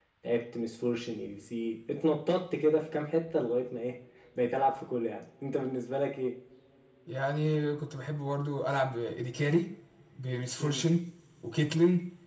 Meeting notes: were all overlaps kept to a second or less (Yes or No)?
Yes